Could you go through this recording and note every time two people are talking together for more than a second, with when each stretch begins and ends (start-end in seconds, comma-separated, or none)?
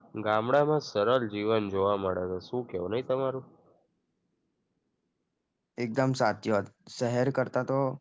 none